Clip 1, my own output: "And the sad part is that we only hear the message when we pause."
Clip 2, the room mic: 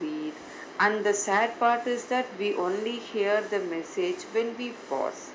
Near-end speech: none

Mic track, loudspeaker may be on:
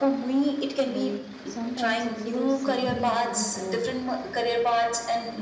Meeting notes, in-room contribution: present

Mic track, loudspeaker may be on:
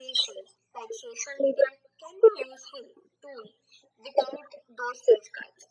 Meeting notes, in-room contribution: none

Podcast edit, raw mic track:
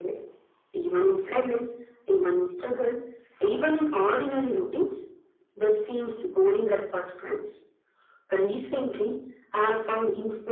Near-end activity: none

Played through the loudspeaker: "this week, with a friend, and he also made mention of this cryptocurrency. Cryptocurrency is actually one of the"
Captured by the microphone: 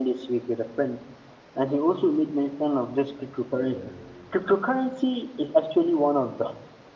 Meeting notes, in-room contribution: present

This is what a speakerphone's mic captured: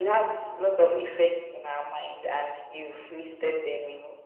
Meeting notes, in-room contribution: none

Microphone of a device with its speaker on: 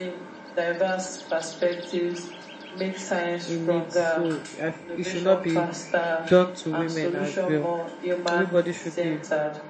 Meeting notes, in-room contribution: present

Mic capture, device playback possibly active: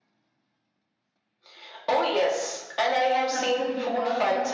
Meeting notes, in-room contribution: present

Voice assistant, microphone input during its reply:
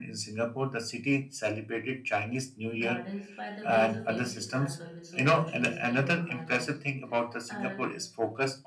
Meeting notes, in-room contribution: present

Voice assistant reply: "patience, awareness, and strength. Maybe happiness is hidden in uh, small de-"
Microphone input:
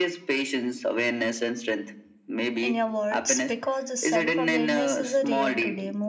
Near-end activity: present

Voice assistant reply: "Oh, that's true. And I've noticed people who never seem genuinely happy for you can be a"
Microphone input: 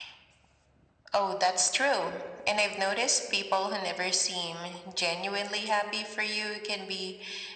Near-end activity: none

